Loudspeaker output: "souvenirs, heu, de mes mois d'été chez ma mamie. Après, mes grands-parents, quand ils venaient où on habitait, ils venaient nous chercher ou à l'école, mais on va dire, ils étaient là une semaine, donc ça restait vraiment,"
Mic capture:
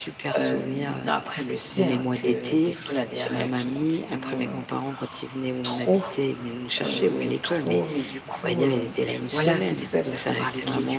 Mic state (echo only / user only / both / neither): both